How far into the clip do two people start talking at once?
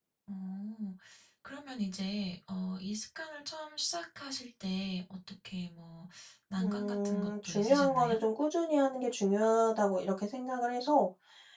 6.6 s

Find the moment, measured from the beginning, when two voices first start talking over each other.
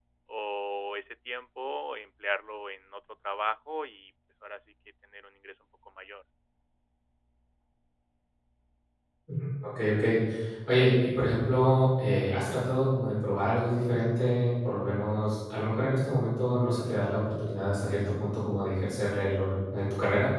none

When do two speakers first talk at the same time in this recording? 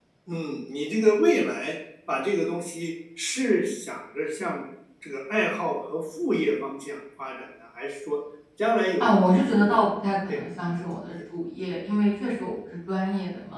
9.0 s

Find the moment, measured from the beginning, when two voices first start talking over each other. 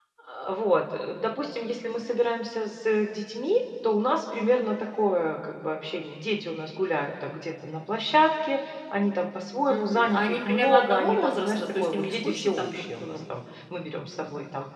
9.7 s

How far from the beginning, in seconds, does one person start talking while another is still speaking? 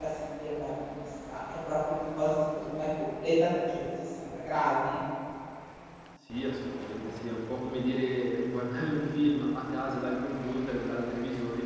none

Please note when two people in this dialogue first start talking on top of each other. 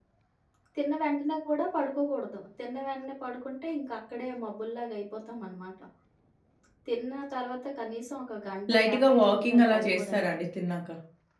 8.7 s

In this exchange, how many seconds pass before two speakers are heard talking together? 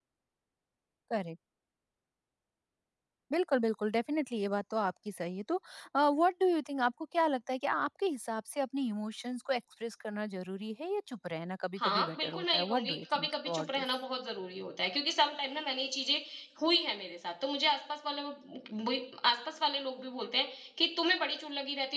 11.8 s

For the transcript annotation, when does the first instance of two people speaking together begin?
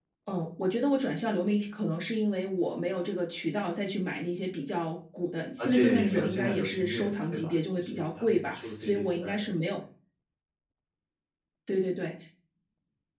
5.6 s

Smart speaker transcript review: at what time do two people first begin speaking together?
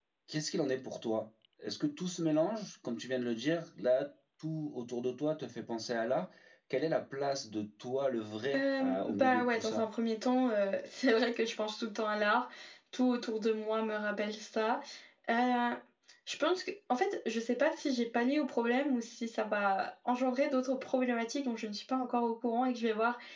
8.5 s

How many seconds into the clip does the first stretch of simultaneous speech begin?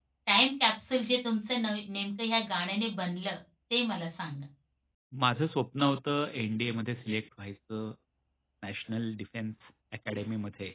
none

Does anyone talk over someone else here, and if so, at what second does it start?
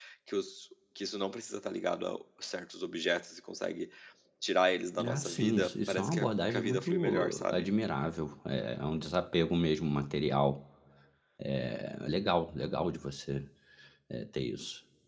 5.0 s

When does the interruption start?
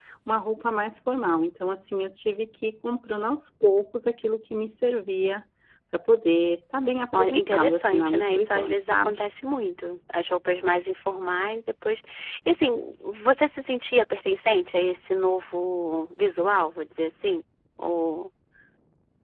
7.1 s

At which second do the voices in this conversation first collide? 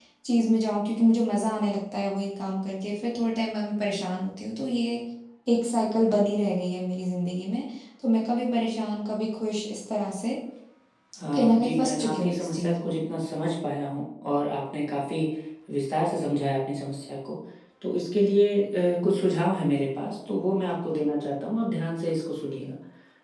11.3 s

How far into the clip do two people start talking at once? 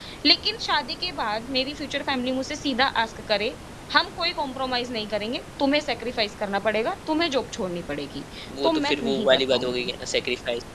8.6 s

